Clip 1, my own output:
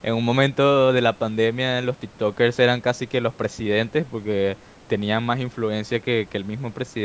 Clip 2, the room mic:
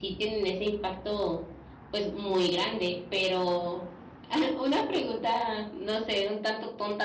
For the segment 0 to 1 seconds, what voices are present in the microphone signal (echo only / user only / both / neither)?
user only